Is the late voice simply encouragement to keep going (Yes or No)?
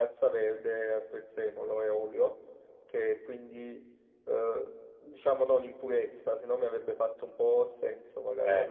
Yes